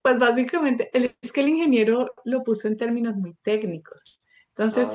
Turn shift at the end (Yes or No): No